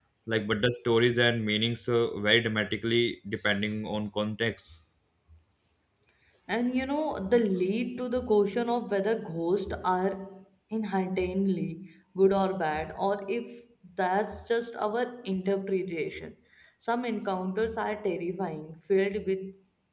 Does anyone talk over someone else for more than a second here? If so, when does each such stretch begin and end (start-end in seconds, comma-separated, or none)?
none